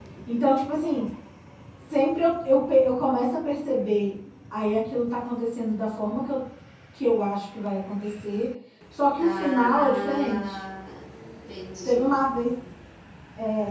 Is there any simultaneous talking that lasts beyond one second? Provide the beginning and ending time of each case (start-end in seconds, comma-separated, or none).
9.2-10.6